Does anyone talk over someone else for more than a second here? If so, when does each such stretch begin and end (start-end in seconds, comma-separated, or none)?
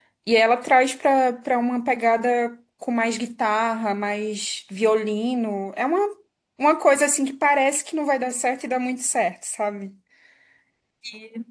none